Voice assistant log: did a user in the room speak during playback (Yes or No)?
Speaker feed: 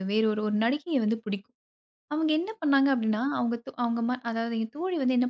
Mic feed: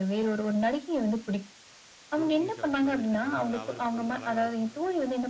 Yes